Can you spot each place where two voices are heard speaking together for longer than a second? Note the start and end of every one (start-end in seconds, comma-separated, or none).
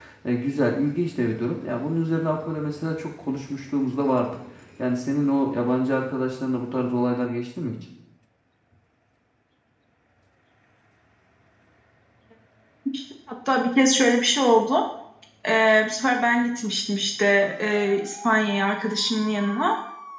none